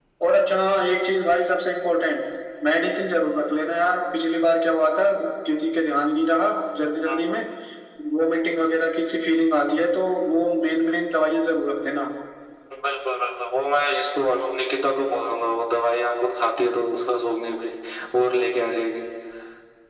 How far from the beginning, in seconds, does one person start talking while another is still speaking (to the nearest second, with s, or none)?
none